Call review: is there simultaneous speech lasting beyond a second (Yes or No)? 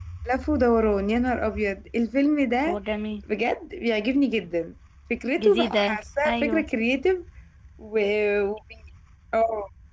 Yes